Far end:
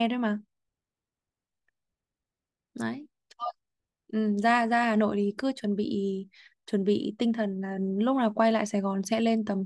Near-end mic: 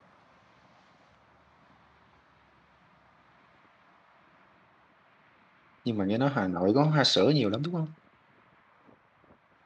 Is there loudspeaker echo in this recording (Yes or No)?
No